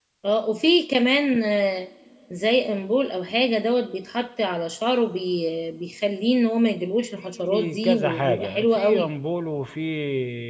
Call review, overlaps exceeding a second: present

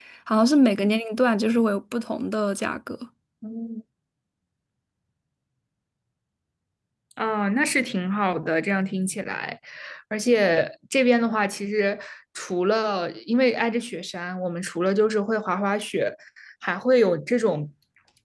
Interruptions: none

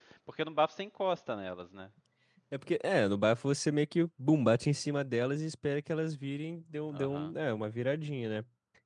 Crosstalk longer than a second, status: none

